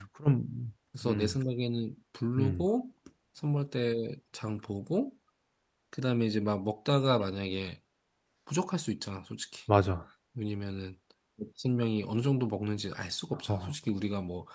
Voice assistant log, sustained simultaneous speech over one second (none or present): none